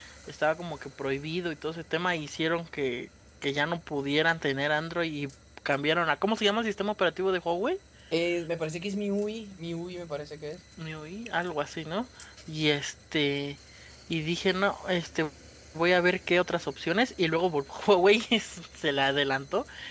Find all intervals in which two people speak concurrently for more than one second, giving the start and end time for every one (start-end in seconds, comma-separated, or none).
none